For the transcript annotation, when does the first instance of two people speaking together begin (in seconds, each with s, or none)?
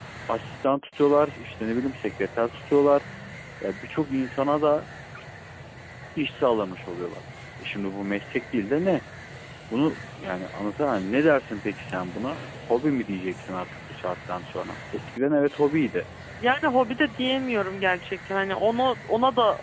none